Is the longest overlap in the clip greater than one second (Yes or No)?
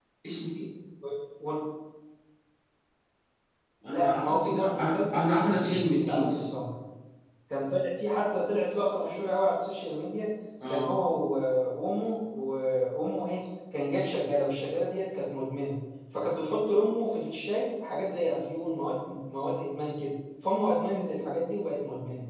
Yes